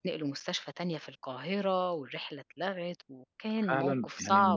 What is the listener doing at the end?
taking over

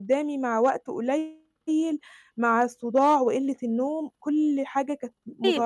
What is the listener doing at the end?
taking over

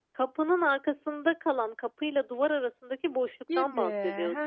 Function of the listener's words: taking over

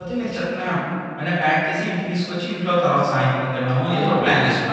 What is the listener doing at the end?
taking over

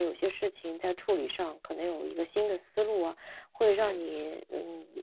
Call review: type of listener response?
listening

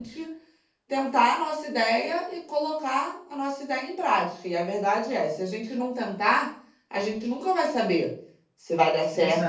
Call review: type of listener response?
listening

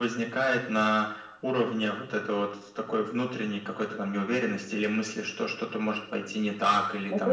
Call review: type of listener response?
taking over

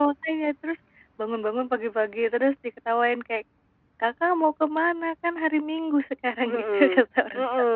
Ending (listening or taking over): taking over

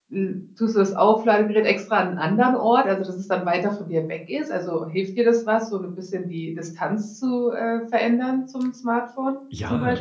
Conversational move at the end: taking over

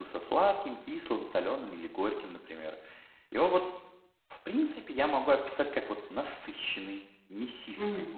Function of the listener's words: listening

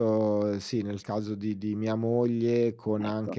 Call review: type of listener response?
listening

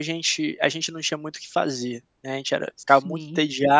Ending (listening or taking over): listening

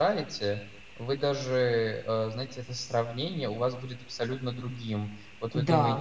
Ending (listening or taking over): listening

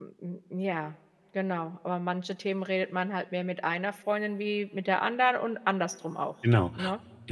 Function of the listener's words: taking over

